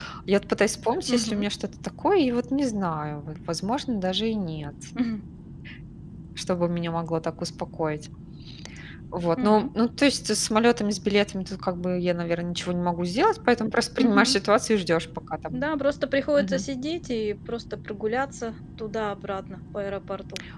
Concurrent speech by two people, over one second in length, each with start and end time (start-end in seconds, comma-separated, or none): none